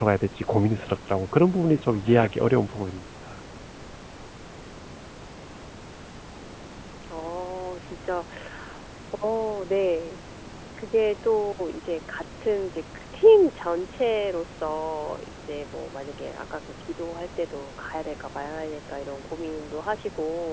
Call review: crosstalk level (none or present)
none